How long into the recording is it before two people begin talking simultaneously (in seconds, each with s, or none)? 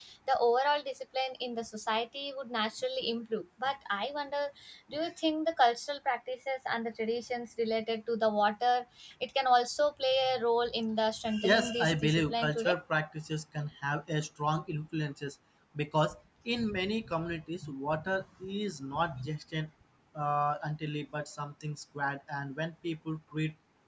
11.4 s